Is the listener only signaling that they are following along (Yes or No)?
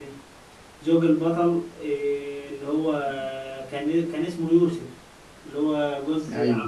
No